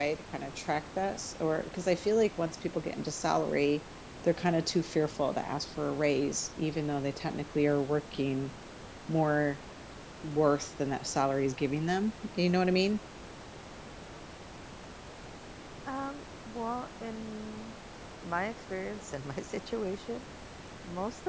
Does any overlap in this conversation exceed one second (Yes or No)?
No